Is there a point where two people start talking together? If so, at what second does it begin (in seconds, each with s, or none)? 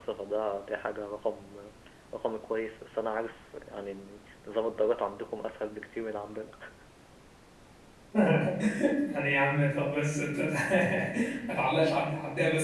none